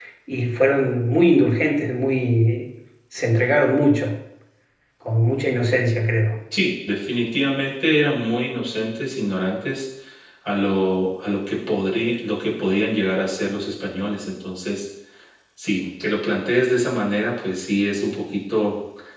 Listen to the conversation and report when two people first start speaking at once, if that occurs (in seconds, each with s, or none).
none